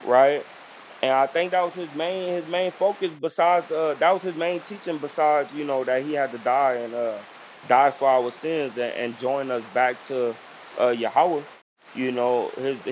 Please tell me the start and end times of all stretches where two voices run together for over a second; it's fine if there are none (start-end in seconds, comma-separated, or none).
none